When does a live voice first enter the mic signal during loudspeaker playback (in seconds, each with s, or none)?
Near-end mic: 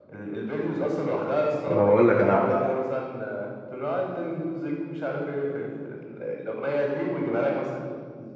1.6 s